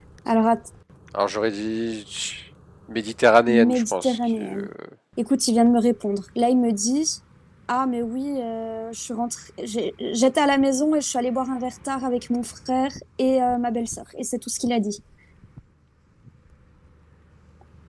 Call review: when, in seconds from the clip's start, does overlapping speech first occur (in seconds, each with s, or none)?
3.5 s